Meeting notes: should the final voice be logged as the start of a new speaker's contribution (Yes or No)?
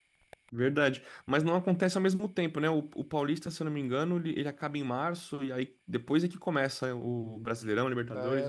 Yes